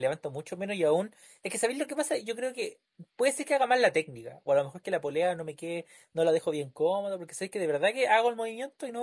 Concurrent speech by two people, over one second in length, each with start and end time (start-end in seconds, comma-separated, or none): none